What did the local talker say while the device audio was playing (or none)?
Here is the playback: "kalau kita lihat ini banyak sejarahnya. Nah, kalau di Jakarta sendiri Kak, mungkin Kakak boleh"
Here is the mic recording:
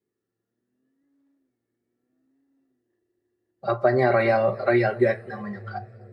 apanya Royal Royal Guard namanya Kak.